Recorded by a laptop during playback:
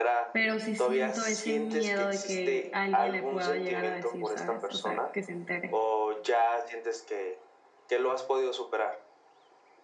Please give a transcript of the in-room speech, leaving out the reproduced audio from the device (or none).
pero sí siento ese miedo de que alguien le pueda llegar a decir, ¿sabes? O sea, que se entere.